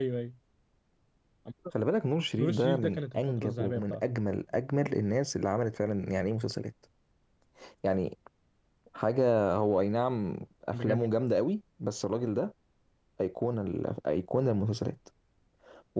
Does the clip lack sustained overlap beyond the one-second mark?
No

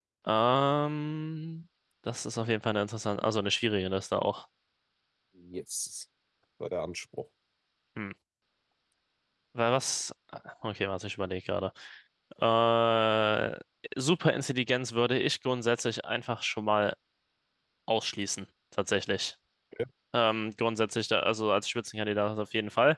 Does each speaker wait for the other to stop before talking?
Yes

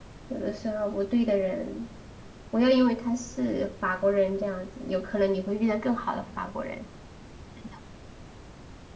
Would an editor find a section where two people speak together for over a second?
No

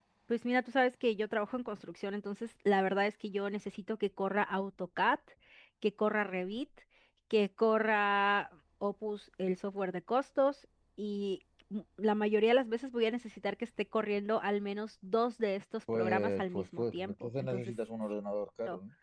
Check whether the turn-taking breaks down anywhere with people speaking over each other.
Yes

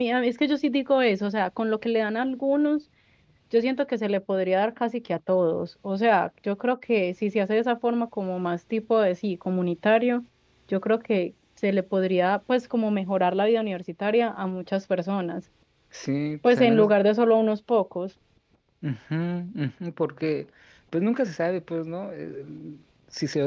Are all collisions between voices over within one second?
Yes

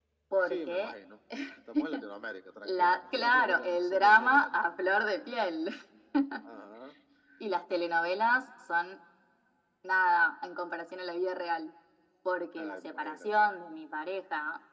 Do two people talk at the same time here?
Yes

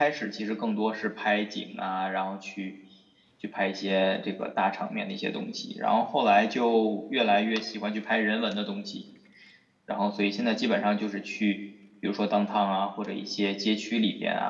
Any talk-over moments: No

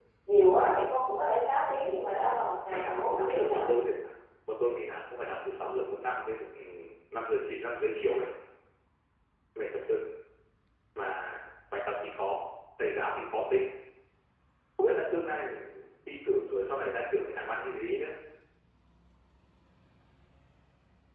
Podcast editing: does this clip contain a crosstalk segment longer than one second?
Yes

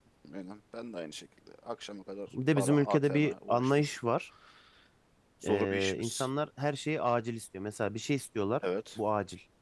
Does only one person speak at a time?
No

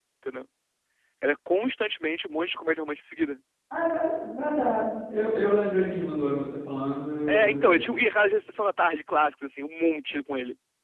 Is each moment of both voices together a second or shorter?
Yes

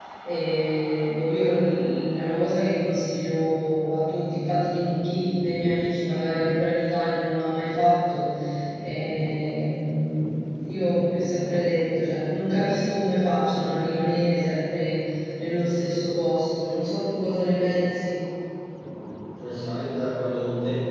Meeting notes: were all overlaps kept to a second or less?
Yes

